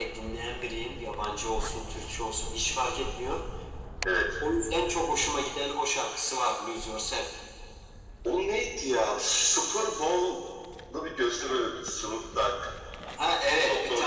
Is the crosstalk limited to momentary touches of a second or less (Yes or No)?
Yes